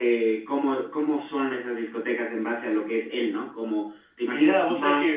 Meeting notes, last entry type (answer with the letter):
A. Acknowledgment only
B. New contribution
B